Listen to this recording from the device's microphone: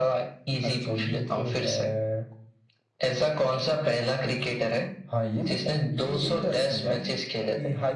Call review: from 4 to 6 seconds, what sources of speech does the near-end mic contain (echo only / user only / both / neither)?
echo only